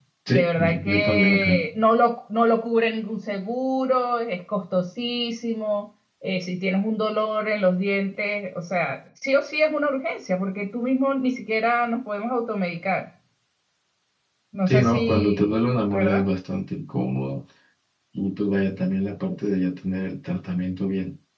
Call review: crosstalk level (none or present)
present